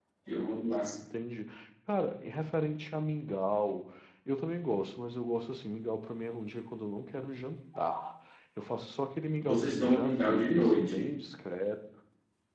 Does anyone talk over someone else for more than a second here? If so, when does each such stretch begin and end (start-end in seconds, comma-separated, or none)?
9.4-11.1